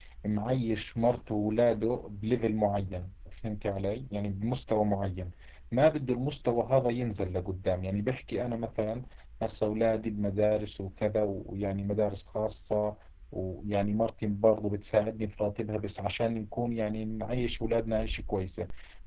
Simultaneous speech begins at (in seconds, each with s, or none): none